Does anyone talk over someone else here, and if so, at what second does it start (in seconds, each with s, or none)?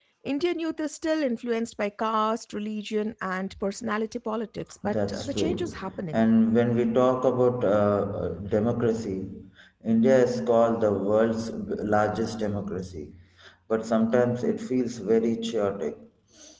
4.8 s